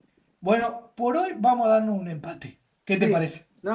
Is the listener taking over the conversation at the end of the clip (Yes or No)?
Yes